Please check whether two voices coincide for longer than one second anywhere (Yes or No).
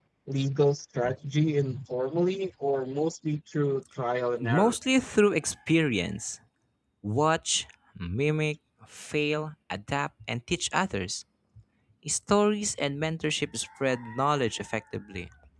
No